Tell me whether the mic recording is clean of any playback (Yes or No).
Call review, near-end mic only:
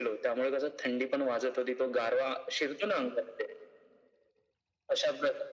No